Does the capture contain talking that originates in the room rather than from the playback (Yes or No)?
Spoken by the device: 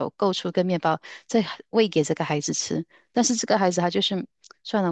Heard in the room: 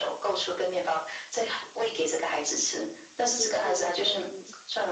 Yes